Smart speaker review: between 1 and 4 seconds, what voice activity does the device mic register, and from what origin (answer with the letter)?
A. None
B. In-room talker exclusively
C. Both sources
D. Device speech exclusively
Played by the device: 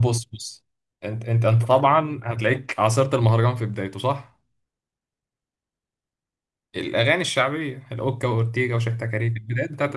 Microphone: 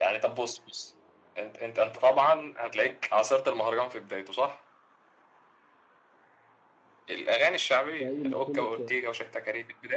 D